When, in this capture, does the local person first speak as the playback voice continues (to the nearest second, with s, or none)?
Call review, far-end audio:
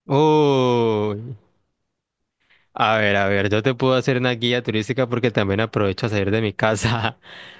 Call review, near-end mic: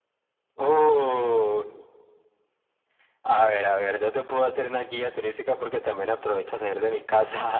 none